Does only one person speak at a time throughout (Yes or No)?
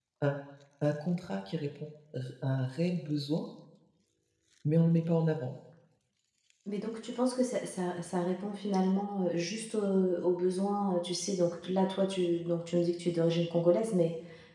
Yes